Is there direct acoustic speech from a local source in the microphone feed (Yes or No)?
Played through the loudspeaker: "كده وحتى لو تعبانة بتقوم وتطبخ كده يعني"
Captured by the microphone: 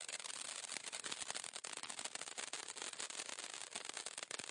No